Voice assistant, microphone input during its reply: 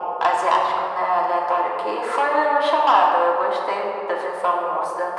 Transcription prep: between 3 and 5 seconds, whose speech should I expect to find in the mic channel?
echo only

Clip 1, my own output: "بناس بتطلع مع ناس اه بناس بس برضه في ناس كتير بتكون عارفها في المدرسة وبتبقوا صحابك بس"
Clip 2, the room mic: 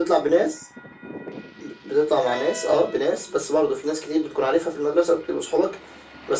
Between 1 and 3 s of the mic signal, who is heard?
echo only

